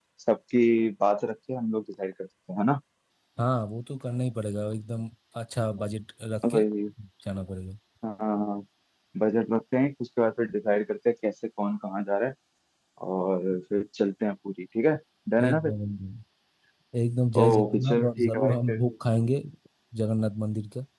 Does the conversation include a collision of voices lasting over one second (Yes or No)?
Yes